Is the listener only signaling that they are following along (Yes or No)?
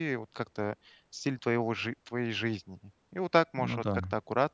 Yes